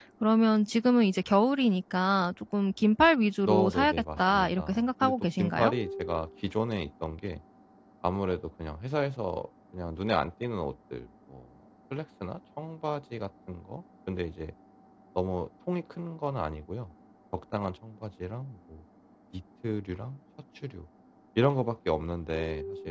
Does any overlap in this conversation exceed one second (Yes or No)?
Yes